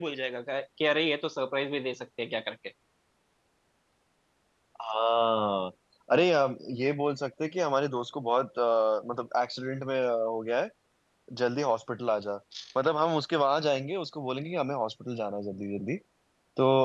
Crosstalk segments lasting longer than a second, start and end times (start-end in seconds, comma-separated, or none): none